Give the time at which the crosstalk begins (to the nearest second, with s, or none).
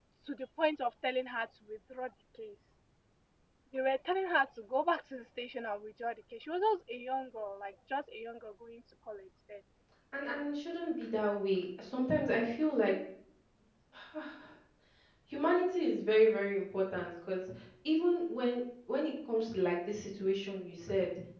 none